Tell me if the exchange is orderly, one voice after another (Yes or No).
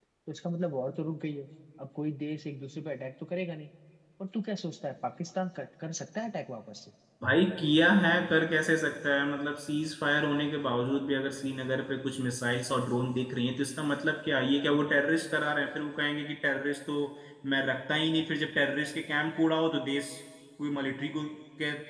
Yes